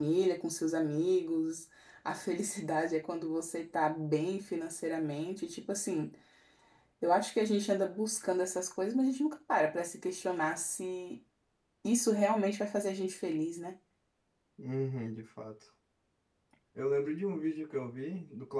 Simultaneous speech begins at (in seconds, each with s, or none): none